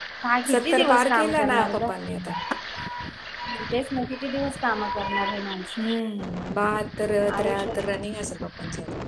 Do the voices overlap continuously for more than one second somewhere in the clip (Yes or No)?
Yes